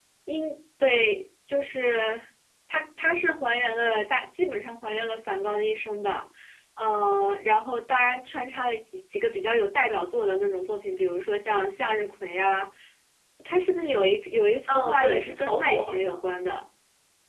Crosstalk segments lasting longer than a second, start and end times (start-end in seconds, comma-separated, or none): 14.7-16.2